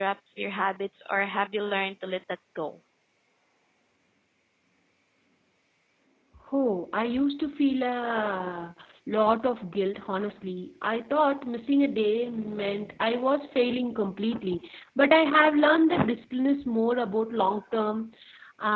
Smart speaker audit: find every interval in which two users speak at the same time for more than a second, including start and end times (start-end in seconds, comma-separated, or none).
none